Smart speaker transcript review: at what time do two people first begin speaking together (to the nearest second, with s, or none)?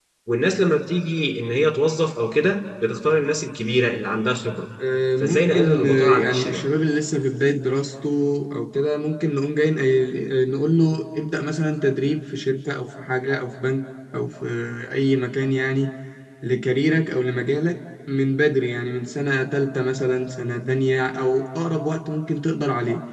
5 s